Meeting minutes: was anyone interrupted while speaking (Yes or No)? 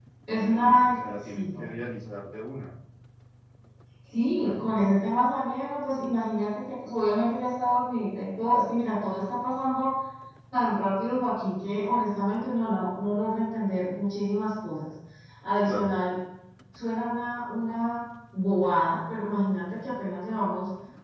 Yes